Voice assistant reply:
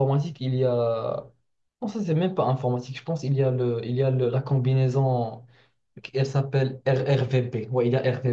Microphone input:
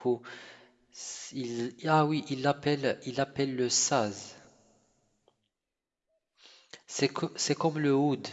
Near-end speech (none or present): present